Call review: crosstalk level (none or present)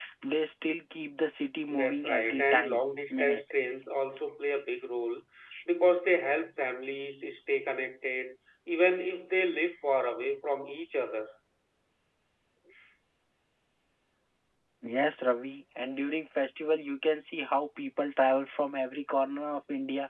present